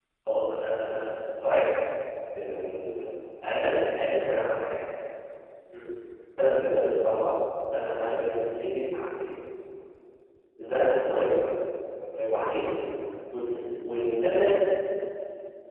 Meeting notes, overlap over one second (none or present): none